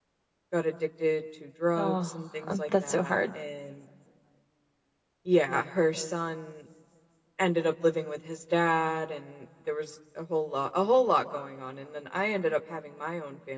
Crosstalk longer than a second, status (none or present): present